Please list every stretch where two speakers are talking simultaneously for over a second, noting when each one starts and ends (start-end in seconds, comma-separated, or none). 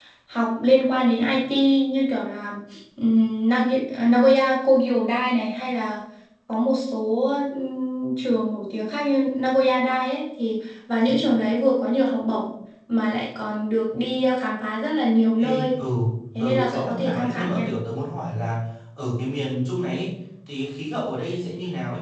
16.4-17.7